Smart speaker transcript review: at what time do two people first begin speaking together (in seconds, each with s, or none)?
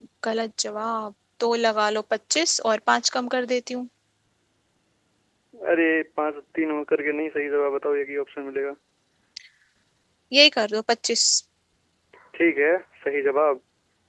none